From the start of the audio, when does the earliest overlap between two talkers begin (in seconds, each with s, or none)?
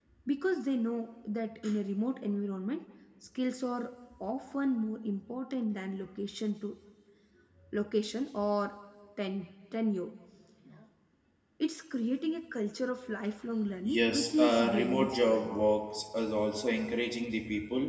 13.8 s